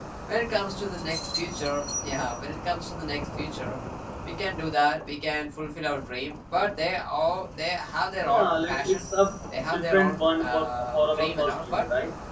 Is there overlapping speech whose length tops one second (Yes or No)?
Yes